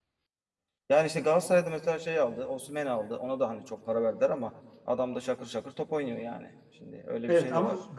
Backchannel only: No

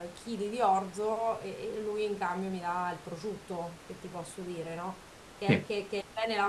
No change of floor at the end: Yes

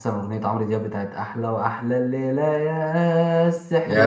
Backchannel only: No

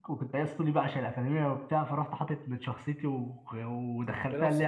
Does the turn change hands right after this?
No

